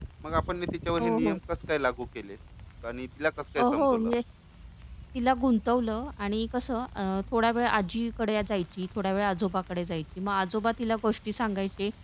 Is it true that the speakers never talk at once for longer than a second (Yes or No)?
Yes